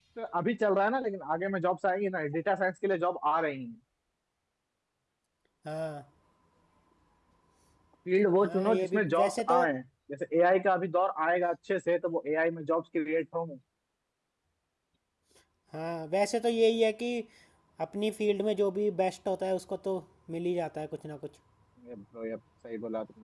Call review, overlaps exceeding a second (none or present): present